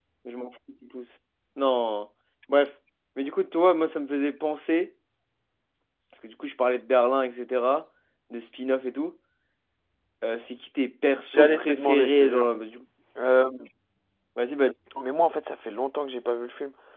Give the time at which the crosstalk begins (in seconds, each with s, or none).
11.3 s